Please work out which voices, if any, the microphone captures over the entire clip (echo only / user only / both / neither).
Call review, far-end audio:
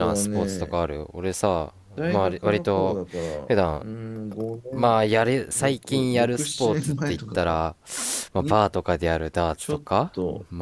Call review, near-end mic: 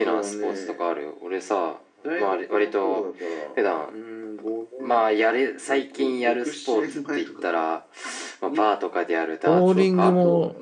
both